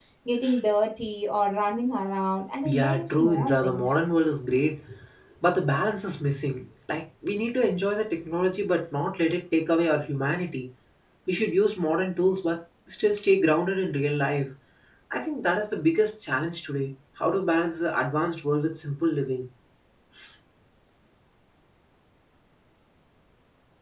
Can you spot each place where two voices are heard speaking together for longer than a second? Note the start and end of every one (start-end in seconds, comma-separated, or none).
2.6-4.0